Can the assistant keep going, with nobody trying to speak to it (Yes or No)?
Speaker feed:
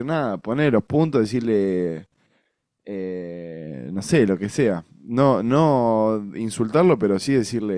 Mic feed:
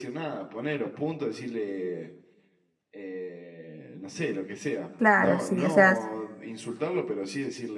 No